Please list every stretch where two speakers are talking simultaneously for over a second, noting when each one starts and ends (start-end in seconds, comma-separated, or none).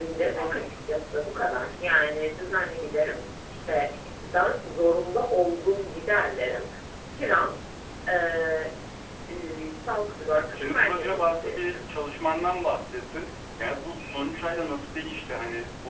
10.5-11.8